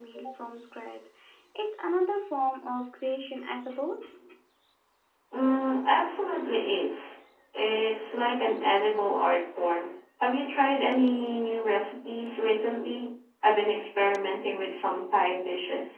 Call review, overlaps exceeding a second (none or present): none